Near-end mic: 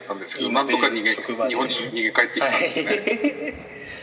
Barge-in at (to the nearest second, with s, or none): none